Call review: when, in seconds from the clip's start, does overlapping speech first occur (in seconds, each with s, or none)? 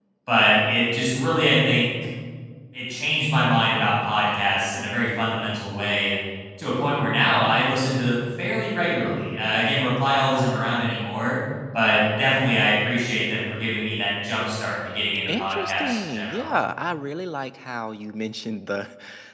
15.3 s